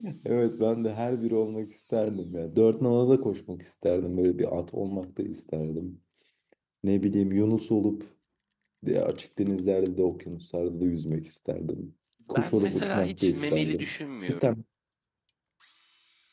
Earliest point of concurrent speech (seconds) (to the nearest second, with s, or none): 12 s